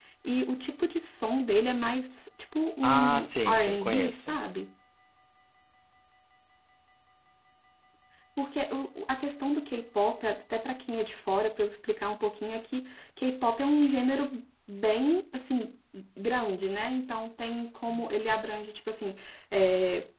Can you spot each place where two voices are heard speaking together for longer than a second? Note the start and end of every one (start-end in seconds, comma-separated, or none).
2.8-4.4